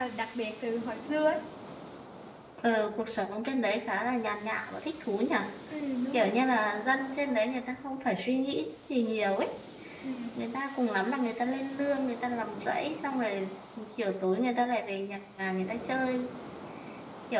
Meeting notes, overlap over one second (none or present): none